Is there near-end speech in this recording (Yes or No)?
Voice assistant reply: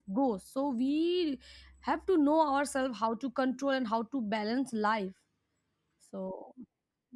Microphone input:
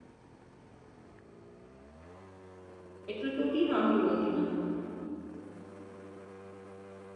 Yes